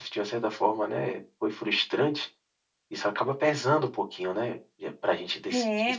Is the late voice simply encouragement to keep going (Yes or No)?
No